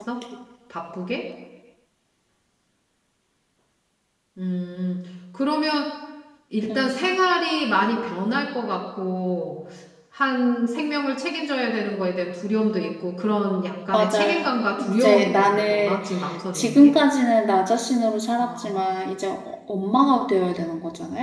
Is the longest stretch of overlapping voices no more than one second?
No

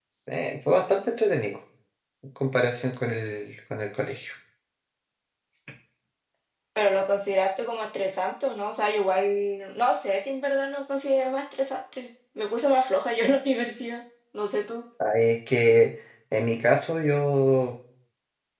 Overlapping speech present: No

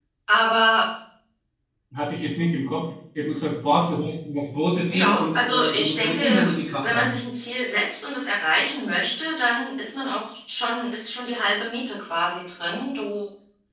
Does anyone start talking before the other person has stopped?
Yes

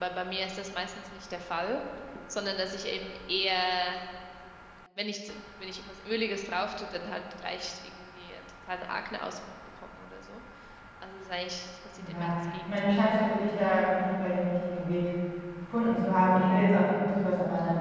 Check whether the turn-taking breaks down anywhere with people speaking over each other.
Yes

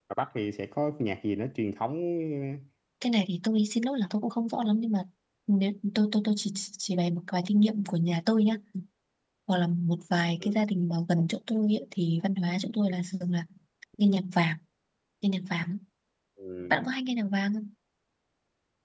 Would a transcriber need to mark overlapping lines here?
No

